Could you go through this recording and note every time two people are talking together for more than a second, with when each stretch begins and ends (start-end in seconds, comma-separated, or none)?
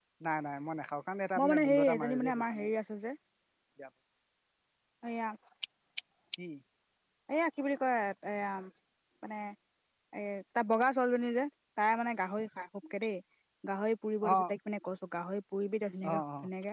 1.4-2.7